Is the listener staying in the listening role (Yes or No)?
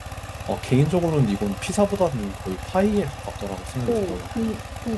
No